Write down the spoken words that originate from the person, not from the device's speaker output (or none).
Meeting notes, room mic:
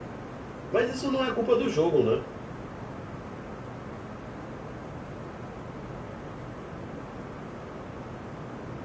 Mas isso não é culpa do jogo, né?